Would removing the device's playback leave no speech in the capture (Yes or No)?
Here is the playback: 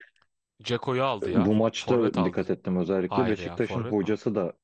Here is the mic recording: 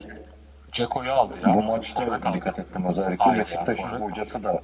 Yes